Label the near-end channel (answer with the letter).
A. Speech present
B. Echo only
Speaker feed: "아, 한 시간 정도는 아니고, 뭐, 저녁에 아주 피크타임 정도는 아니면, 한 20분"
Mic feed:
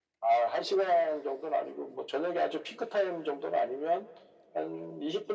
B